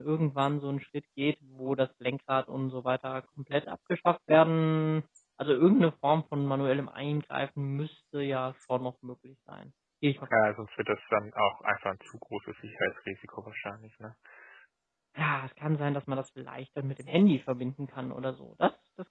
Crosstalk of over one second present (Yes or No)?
No